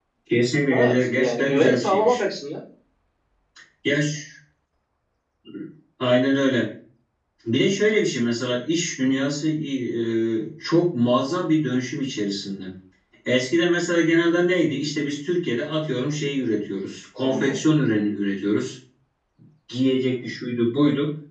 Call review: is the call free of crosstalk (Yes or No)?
No